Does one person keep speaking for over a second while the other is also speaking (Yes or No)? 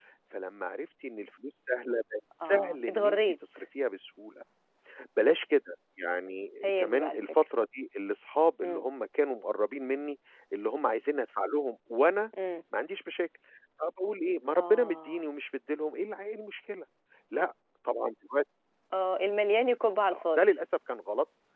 Yes